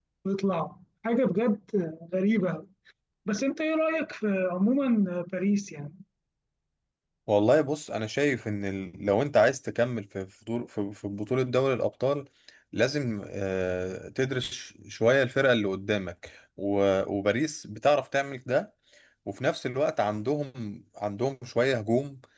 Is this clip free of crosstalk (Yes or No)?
Yes